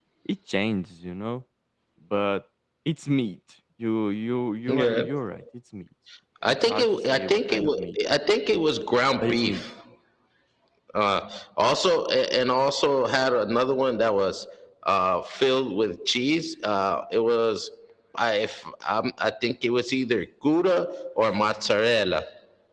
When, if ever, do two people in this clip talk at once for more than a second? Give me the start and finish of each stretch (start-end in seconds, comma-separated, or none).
6.4-8.0